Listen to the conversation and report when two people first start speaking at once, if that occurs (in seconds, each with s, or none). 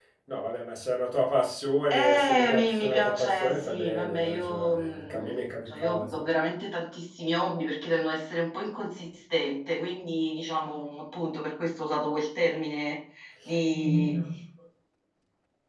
1.9 s